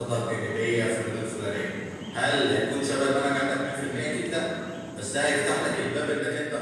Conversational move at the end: listening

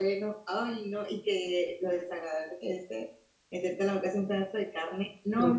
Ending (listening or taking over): listening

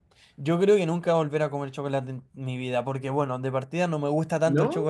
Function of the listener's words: listening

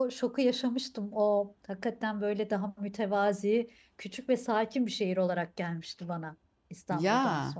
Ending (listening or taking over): taking over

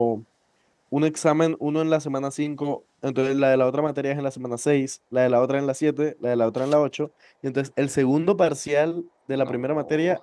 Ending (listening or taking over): listening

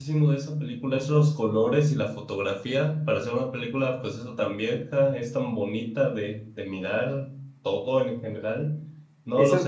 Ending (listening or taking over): listening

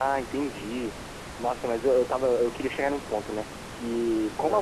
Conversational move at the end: listening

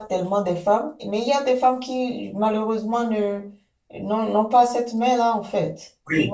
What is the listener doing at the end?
taking over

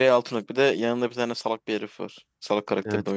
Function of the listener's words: taking over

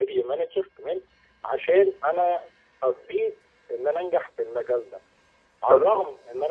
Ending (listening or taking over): listening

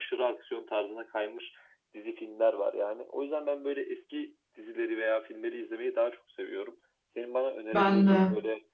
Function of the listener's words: listening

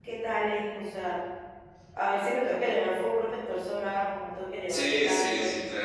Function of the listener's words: taking over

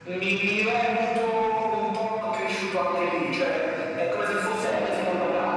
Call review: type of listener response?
listening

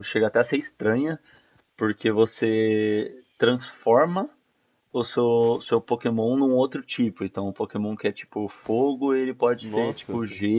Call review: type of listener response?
listening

